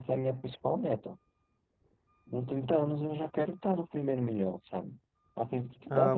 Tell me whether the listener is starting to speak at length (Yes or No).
Yes